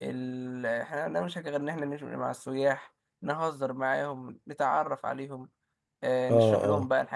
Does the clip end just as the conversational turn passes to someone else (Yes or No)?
No